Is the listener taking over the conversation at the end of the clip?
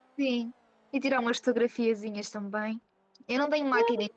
No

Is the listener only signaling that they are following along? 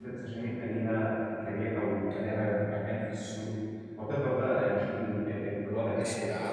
No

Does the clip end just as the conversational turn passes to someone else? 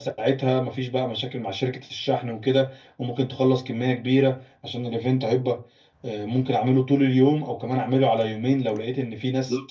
Yes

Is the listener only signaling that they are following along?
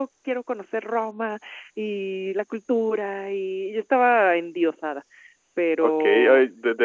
No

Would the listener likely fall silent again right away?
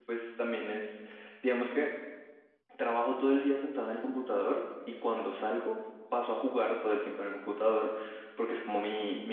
Yes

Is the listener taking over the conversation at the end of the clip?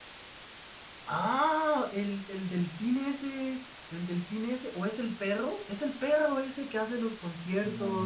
Yes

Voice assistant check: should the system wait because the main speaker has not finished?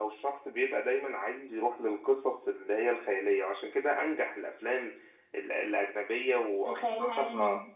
Yes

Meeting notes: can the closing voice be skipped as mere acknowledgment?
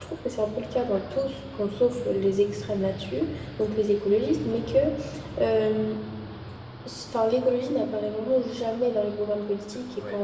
Yes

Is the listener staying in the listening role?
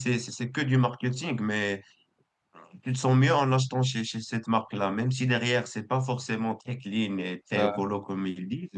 Yes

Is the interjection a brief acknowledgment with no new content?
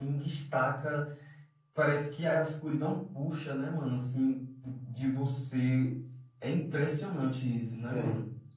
No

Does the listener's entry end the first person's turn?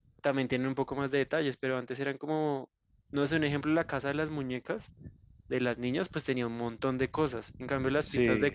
No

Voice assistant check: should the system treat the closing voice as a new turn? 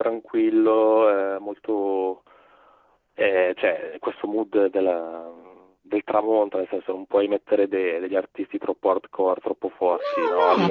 Yes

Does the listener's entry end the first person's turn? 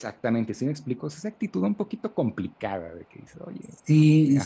Yes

